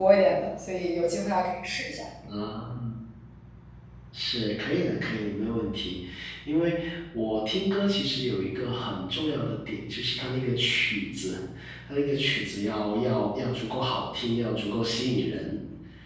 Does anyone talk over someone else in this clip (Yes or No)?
No